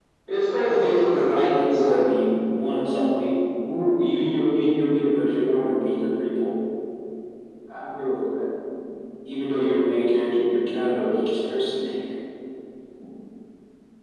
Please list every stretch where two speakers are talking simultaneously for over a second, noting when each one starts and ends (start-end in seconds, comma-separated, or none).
0.6-1.9